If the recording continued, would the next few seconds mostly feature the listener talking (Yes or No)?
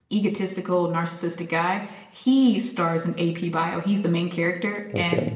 No